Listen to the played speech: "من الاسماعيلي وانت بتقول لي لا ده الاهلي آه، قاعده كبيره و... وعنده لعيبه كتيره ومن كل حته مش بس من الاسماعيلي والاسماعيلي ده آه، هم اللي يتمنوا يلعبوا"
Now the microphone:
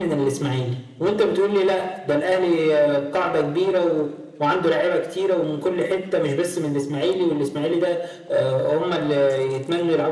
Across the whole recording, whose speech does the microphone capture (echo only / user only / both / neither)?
echo only